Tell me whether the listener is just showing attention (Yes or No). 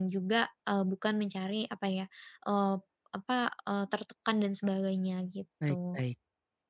No